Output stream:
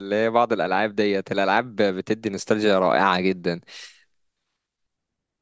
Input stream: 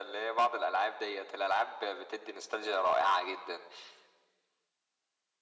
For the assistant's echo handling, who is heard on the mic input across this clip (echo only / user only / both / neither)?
echo only